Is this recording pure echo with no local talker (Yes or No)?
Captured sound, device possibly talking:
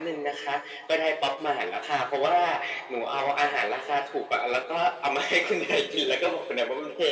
Yes